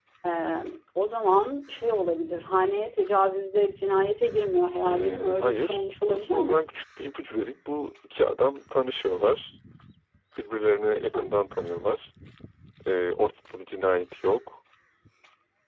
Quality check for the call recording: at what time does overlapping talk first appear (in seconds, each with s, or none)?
4.9 s